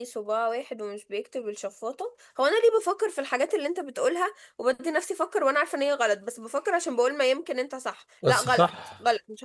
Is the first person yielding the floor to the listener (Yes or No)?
No